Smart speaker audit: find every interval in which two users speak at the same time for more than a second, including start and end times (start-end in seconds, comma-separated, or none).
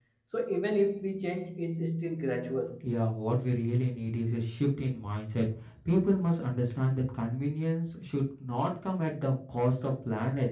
none